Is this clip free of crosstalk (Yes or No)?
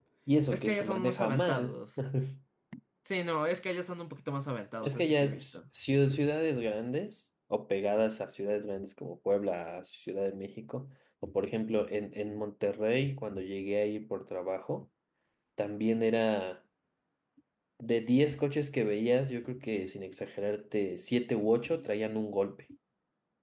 No